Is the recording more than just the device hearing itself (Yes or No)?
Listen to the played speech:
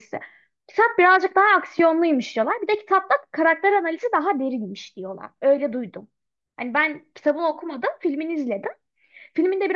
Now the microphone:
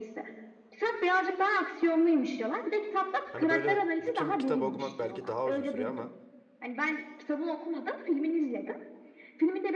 Yes